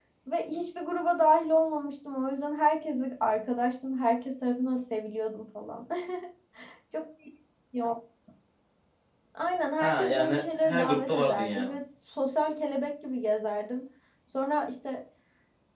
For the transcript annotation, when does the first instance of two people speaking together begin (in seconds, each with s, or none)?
9.8 s